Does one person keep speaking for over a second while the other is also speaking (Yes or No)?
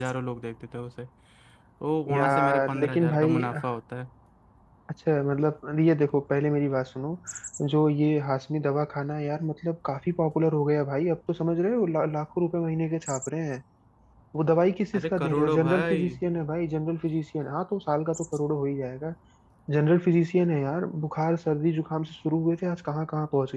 Yes